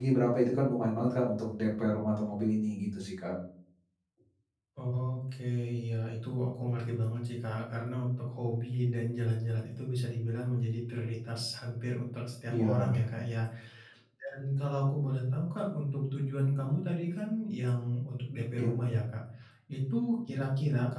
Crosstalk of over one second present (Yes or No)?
No